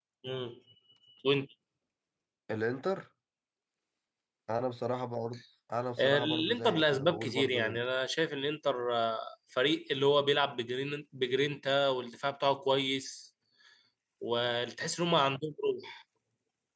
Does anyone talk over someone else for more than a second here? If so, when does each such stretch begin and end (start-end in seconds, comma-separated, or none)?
6.0-7.8